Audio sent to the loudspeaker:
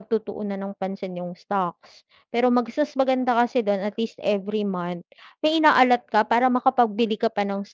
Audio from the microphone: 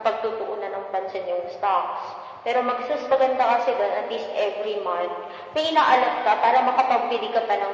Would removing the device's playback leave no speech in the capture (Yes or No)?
Yes